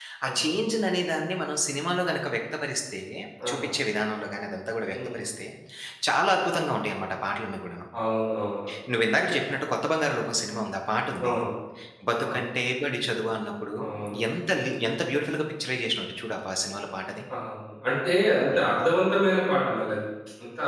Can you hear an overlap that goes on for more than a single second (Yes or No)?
No